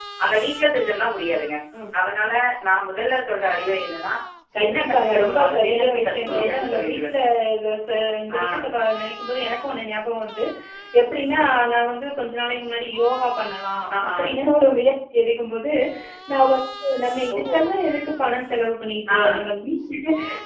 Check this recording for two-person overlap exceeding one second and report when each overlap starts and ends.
4.6-7.1

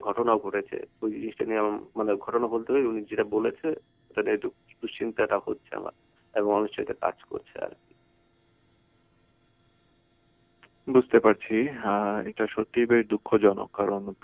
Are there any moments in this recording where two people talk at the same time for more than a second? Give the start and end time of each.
none

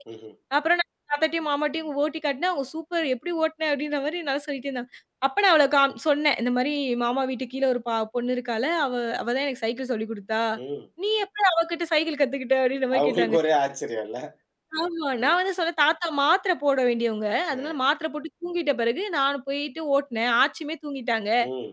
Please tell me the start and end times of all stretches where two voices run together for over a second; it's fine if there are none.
none

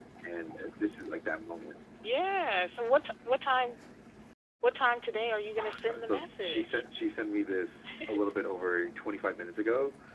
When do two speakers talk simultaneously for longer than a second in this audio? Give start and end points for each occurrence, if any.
5.6-6.8

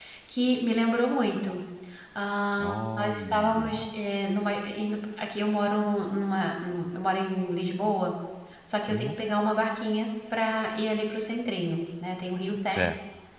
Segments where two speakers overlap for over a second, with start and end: 2.6-3.9

